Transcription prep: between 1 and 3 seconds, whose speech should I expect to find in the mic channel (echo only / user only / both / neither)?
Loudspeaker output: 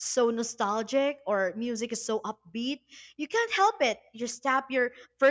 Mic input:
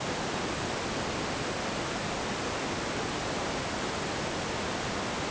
neither